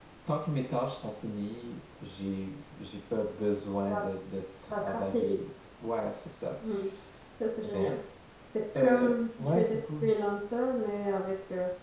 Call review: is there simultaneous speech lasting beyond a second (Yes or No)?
Yes